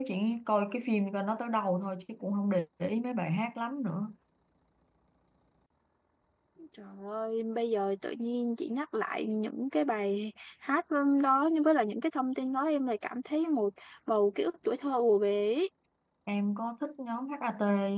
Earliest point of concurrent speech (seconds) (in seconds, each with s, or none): none